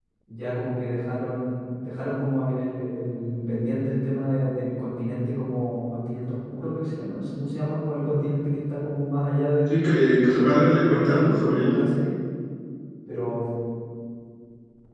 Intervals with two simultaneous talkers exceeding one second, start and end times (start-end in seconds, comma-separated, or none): 10.2-11.7